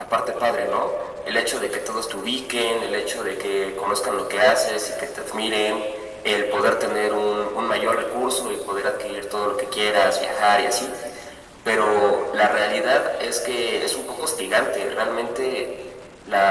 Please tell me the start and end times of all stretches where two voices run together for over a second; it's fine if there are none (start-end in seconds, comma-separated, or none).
none